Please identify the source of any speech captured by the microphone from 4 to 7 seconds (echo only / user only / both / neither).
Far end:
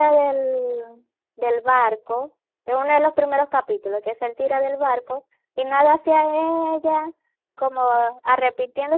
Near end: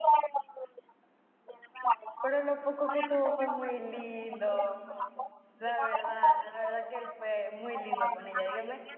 both